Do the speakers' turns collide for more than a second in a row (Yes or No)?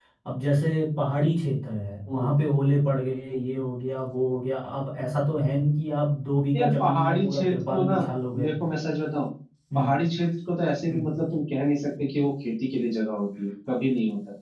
Yes